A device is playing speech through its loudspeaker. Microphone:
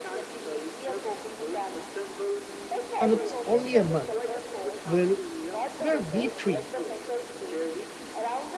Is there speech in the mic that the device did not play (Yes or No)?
Yes